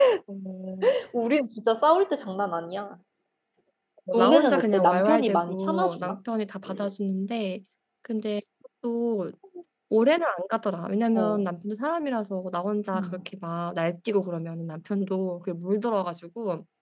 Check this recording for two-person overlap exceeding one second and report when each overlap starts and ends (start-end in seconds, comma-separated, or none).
4.1-6.2